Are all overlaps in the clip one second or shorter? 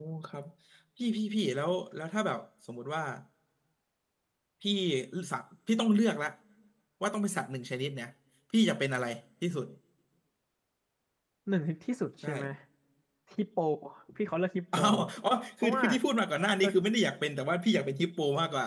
Yes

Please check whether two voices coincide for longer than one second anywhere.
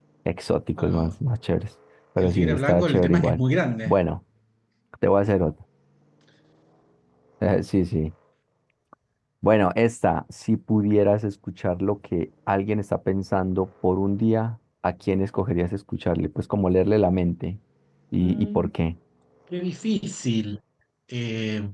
Yes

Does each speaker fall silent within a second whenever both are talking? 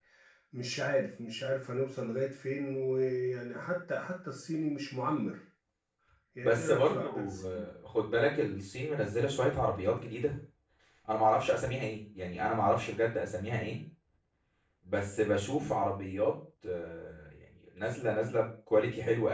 No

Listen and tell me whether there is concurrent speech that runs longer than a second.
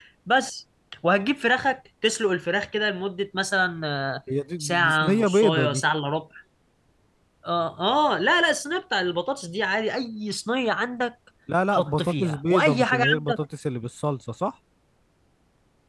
Yes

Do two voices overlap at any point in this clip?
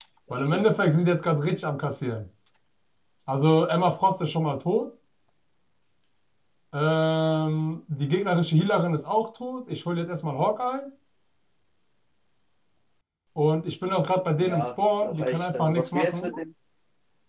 Yes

